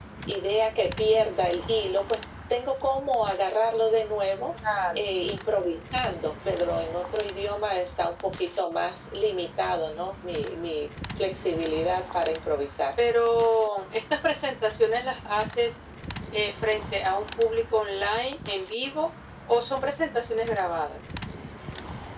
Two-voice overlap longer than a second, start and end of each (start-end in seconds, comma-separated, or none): none